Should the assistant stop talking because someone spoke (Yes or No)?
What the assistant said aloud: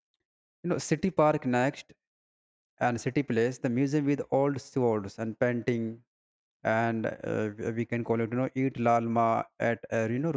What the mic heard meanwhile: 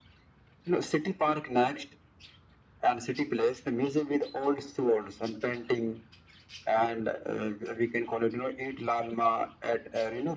No